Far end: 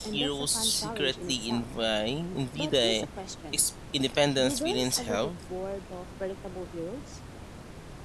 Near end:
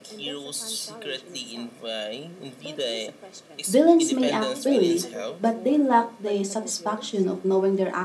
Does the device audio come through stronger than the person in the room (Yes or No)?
No